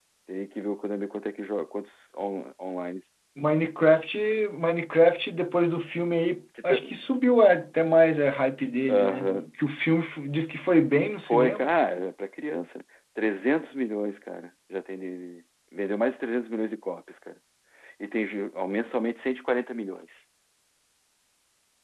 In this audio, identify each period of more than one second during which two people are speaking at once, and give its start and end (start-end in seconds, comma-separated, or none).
none